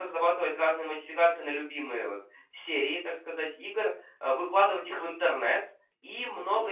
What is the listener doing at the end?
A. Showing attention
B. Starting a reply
A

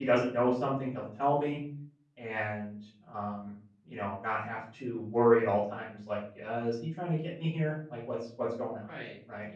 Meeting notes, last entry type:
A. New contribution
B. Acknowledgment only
A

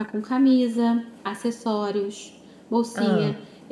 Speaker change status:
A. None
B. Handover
A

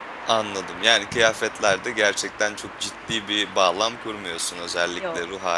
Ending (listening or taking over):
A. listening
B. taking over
A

